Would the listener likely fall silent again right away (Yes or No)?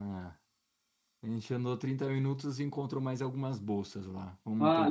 No